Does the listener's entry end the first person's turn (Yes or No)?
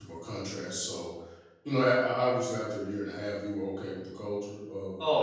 Yes